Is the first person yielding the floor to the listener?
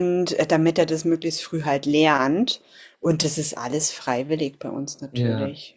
Yes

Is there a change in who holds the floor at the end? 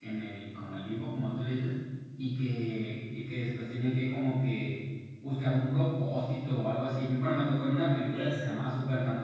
No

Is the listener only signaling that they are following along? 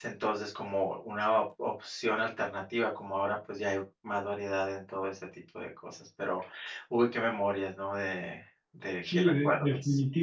No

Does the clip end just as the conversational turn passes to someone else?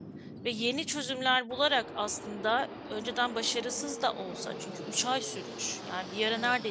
No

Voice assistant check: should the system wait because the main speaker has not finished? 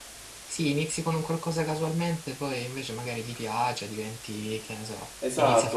No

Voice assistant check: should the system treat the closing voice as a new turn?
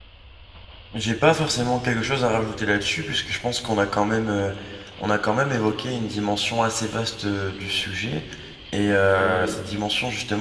No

